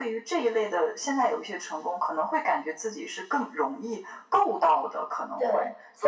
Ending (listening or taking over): taking over